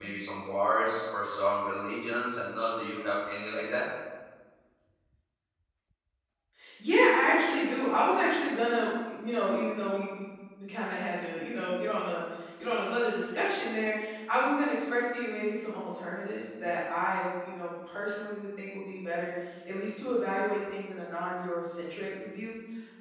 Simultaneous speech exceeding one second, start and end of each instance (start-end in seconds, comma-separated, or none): none